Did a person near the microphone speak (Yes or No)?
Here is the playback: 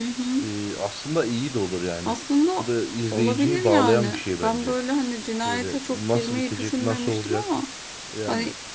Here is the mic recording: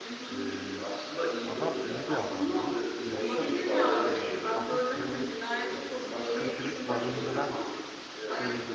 Yes